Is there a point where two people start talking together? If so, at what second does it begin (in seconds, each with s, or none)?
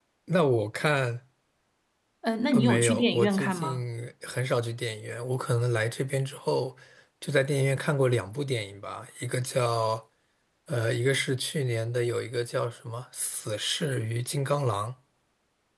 2.5 s